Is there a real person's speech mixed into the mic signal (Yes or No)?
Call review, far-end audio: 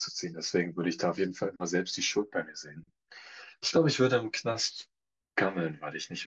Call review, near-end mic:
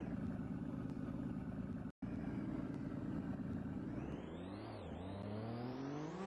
No